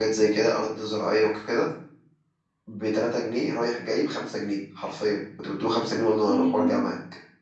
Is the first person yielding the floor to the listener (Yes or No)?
No